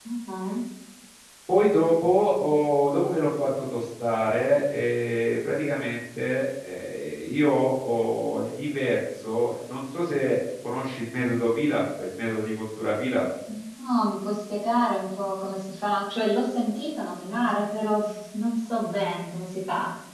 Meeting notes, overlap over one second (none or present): none